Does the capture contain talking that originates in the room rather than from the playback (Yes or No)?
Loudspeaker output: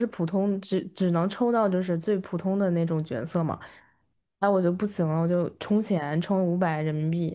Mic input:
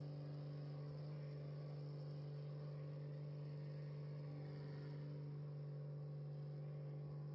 No